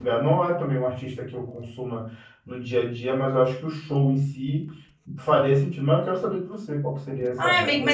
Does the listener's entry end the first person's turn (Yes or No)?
Yes